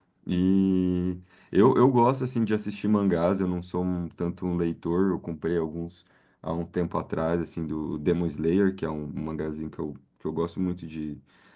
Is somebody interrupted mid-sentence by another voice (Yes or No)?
No